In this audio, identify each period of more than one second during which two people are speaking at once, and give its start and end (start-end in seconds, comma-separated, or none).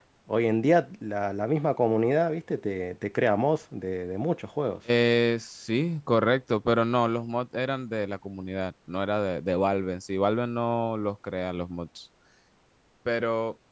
none